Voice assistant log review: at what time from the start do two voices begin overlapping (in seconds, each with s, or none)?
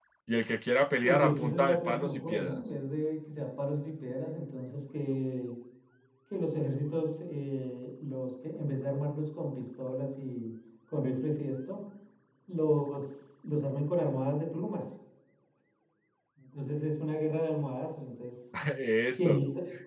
1.0 s